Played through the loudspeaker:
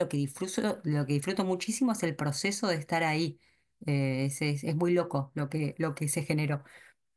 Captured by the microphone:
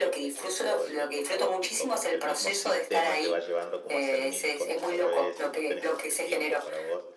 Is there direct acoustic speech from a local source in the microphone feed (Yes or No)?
Yes